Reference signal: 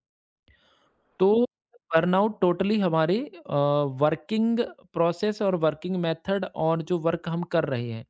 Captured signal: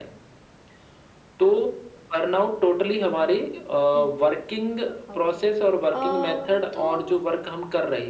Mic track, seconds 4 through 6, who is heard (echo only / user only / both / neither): both